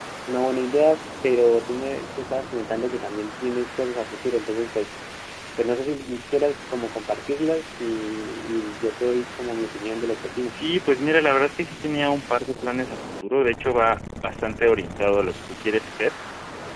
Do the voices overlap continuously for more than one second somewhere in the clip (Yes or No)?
No